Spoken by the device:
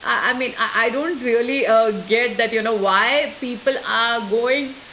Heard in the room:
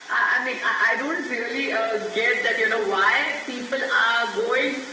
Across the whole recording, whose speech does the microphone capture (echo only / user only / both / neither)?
echo only